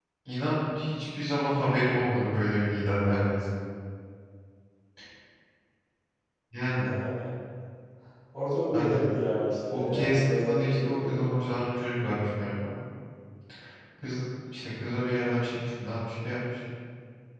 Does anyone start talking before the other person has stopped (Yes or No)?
Yes